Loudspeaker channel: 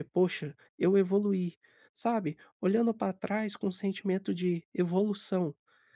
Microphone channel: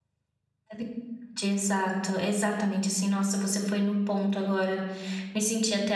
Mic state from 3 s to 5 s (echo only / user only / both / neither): user only